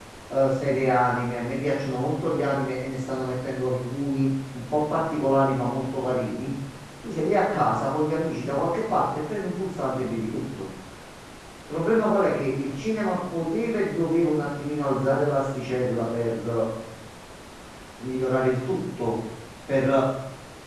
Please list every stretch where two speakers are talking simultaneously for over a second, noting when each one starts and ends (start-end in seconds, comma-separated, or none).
none